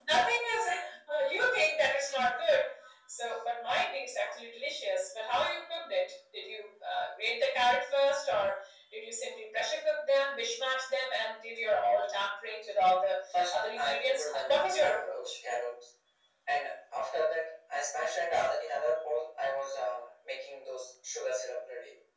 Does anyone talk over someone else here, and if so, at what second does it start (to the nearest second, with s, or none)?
14 s